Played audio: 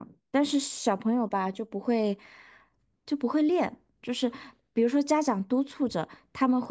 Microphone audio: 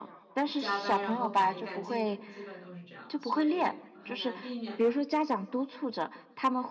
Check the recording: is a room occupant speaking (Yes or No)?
Yes